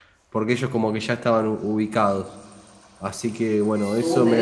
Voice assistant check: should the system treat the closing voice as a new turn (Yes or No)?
Yes